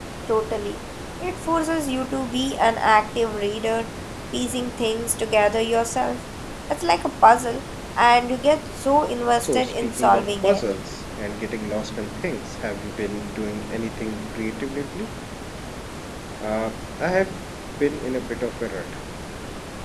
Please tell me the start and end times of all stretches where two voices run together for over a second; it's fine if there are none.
9.4-10.6

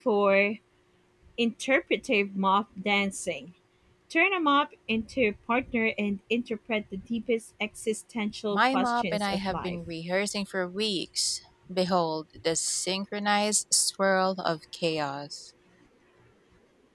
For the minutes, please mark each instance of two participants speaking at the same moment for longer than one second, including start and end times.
8.5-9.8

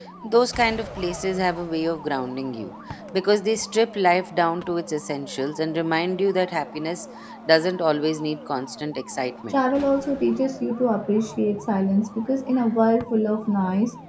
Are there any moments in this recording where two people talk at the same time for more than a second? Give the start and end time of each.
none

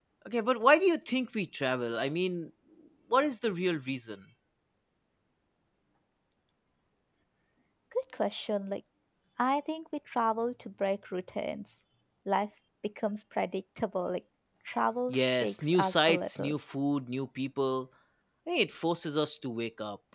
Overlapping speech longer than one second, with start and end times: 15.1-16.5

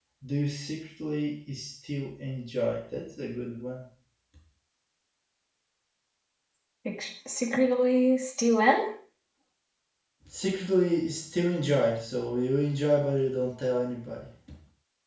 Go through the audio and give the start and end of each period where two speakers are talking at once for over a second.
none

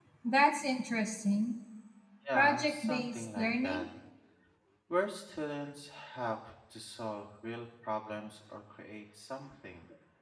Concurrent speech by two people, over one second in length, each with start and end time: 2.3-3.8

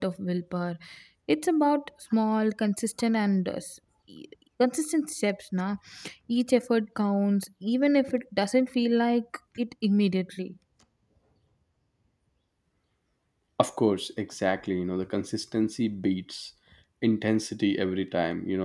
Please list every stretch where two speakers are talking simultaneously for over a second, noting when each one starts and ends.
none

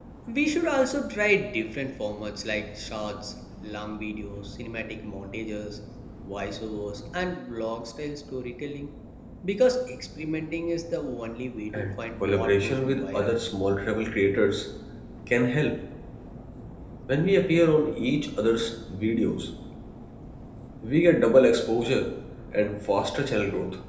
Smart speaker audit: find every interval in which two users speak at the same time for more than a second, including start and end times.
11.7-13.3

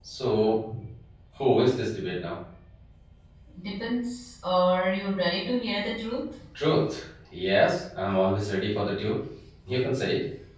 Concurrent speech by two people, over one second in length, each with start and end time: none

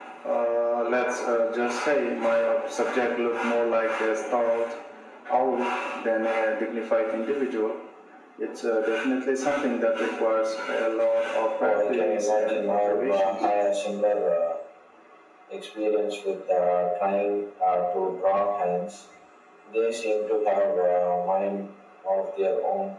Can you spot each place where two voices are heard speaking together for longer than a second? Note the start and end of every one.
11.6-13.5

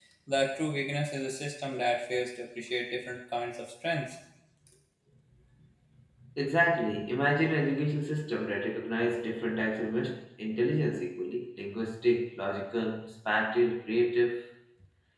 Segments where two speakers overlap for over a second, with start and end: none

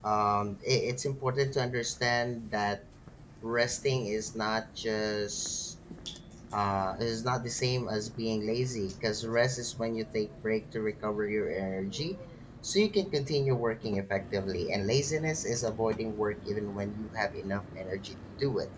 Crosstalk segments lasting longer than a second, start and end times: none

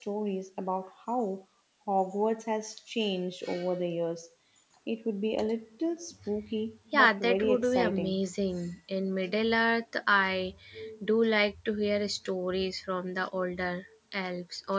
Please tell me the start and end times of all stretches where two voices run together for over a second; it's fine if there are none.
6.9-8.2

